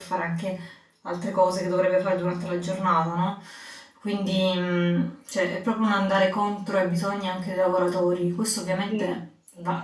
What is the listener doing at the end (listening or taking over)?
listening